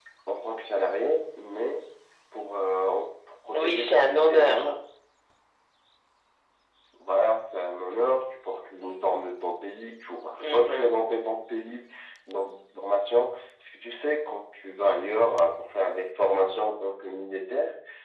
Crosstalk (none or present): present